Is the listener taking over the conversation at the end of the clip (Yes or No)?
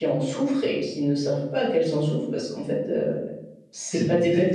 Yes